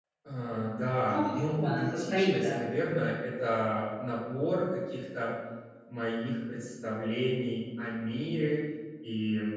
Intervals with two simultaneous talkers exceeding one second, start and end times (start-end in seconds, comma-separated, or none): 1.1-2.6